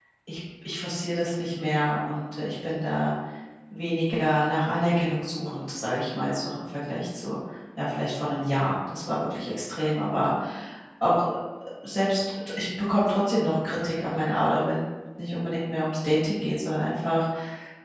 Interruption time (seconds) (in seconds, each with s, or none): none